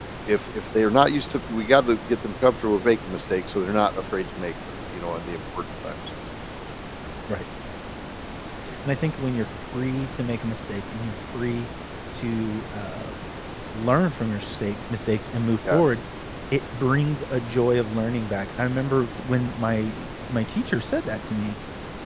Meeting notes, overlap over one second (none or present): none